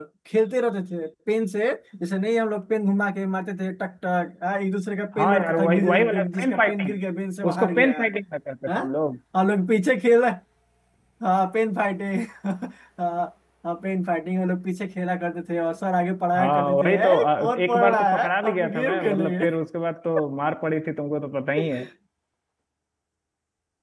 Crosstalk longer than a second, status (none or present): present